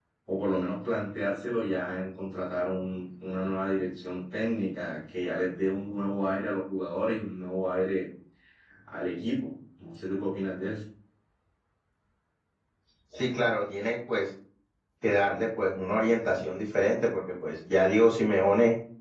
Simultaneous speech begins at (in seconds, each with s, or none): none